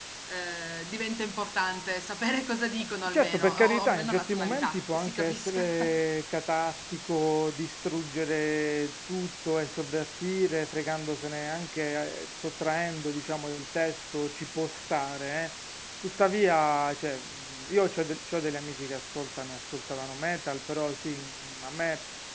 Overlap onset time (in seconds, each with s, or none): 3.0 s